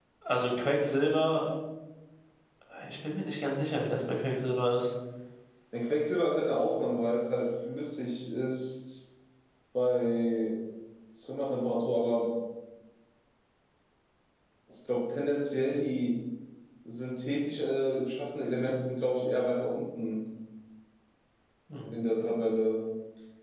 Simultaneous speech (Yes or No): No